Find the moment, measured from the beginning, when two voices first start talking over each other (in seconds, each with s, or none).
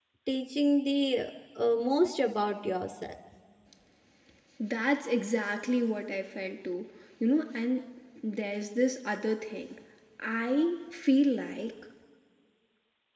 none